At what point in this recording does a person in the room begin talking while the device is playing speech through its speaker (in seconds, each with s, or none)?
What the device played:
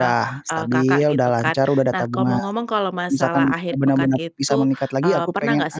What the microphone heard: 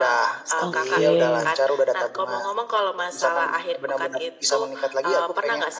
0.6 s